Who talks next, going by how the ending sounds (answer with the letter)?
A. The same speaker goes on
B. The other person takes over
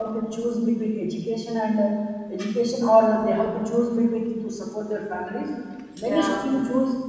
A